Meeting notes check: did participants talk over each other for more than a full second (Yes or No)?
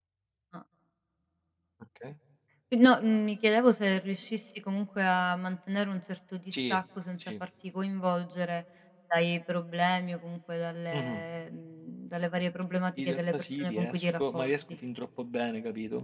Yes